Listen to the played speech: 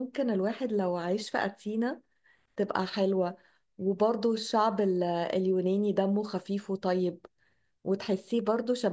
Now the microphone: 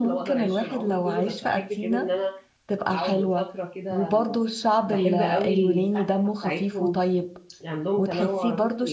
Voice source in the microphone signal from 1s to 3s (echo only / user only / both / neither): both